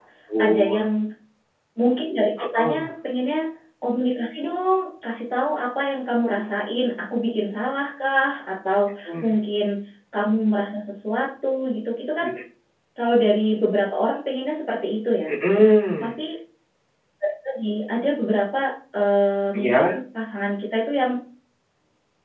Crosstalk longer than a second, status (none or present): none